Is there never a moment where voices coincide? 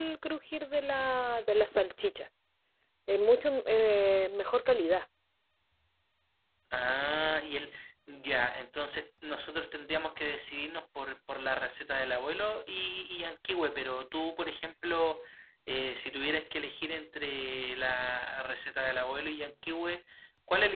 Yes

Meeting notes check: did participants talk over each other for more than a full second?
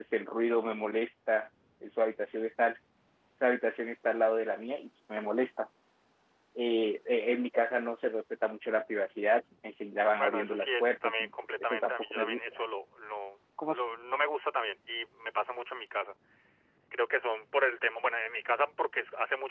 Yes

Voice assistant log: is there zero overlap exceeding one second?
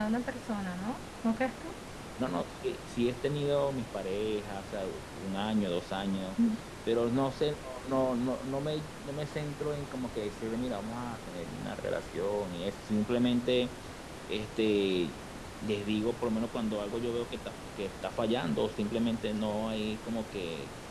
Yes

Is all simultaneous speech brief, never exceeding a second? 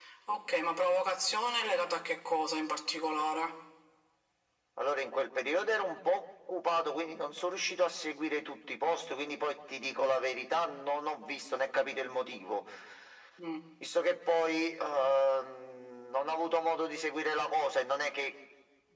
Yes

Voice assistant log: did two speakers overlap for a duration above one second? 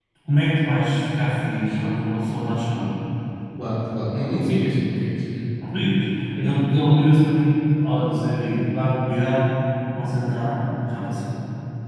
No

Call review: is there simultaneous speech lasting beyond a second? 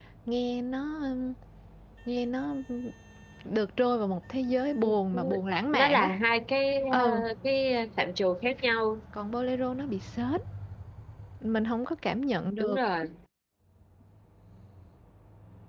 No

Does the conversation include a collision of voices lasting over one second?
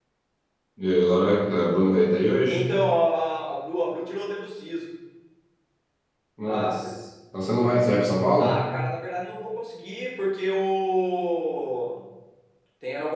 No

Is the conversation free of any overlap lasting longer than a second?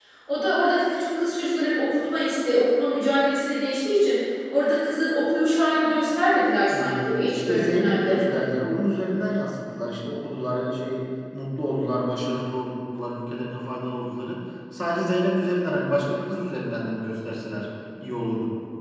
No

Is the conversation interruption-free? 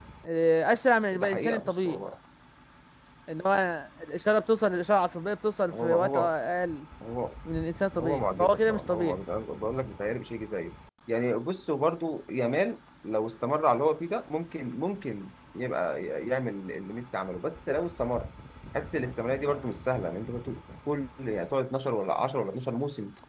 No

